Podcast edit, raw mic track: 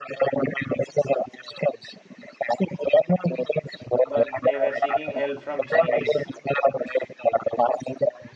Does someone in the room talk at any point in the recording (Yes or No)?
Yes